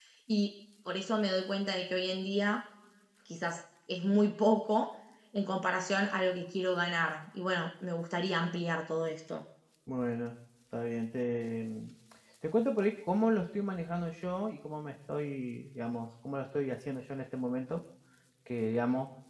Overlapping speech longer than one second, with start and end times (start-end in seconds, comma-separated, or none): none